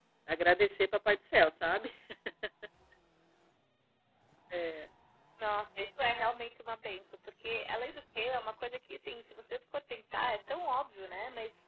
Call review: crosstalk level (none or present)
none